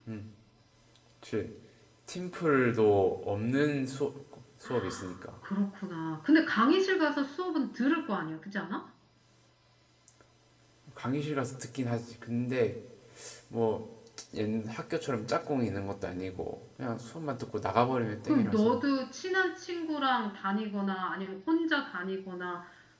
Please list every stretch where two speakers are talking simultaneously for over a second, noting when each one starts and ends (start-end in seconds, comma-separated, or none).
none